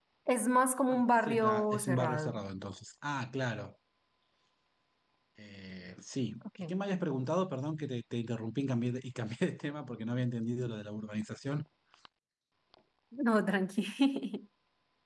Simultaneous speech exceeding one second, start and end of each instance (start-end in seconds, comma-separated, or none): 0.9-2.4